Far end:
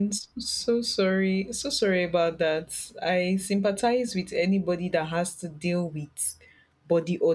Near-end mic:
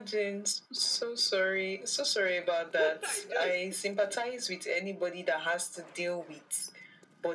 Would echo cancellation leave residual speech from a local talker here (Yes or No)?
Yes